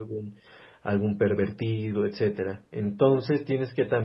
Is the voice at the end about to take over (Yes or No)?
No